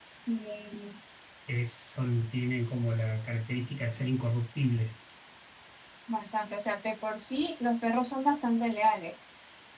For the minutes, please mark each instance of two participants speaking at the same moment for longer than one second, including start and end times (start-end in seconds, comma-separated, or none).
none